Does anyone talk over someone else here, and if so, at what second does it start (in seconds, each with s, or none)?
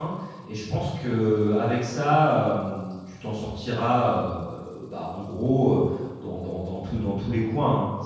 none